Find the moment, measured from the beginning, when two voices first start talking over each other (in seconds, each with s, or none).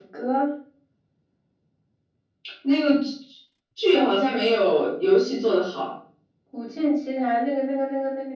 none